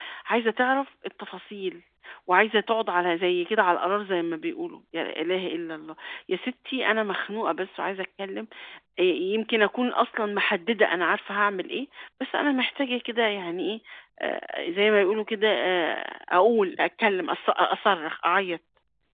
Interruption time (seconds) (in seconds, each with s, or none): none